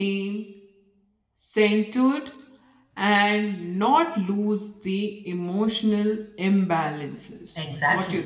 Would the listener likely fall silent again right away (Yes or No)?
No